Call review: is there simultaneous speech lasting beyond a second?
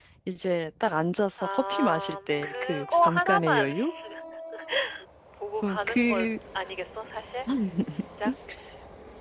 Yes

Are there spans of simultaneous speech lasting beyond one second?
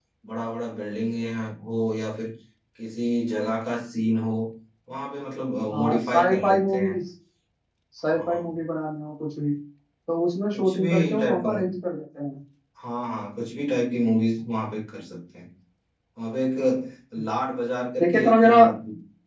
Yes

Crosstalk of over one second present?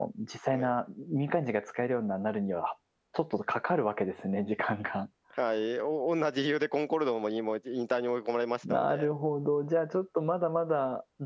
No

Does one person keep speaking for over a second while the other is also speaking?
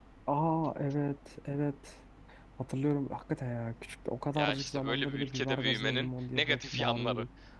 Yes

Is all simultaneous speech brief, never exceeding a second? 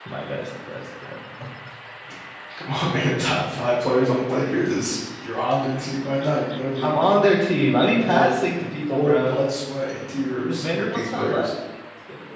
No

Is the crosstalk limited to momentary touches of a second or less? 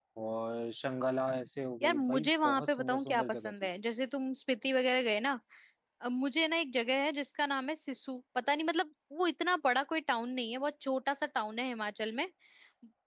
No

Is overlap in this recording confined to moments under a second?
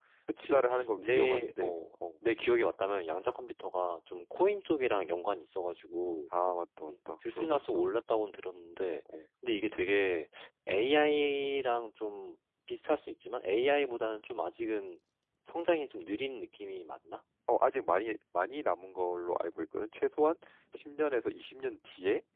No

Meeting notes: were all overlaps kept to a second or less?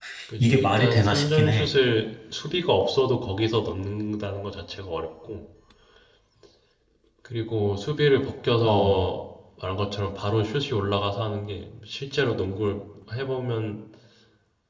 No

